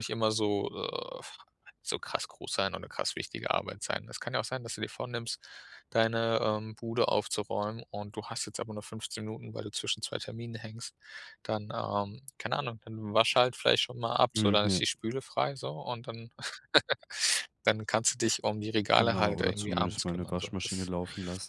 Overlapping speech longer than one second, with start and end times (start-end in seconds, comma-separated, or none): 19.0-20.9